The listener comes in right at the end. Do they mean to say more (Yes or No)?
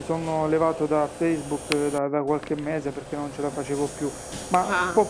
No